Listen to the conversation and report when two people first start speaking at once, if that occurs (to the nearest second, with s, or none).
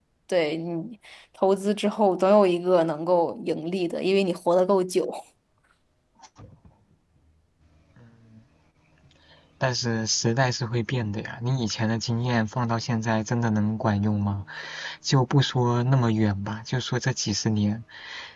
none